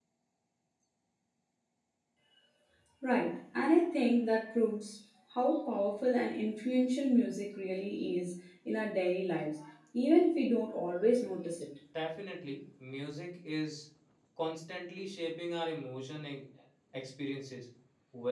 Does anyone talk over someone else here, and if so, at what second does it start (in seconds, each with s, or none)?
none